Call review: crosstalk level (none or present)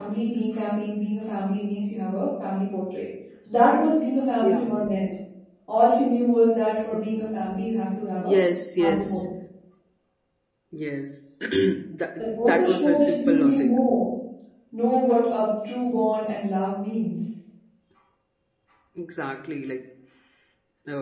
present